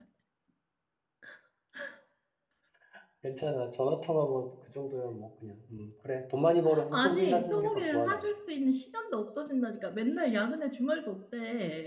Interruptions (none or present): present